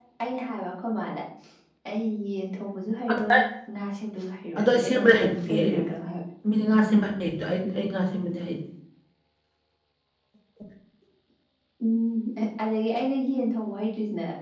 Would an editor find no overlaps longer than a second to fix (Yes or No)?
No